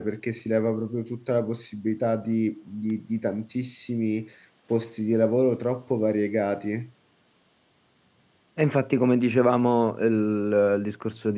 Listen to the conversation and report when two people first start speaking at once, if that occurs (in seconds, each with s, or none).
none